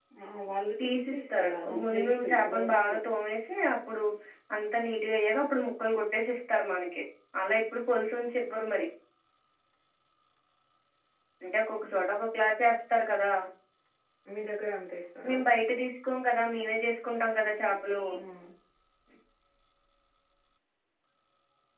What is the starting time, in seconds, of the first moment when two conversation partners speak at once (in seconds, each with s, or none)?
0.8 s